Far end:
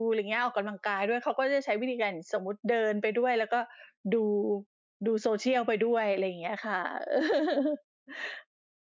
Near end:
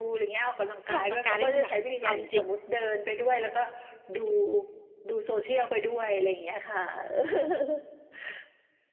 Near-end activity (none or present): present